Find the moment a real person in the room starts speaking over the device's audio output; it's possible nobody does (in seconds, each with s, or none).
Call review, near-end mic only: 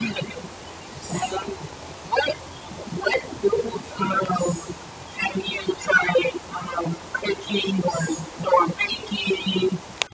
none